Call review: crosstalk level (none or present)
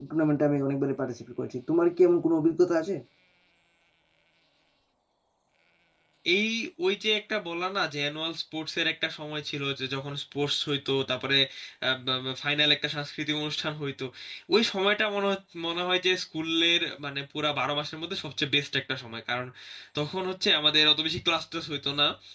none